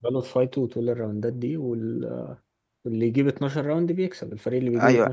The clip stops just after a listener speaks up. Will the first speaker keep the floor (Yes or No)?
No